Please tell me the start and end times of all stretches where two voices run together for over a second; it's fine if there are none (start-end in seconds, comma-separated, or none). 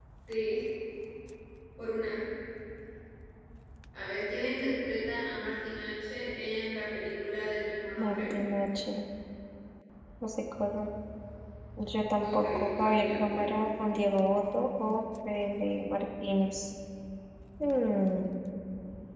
12.1-13.5